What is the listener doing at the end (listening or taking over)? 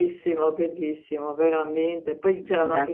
listening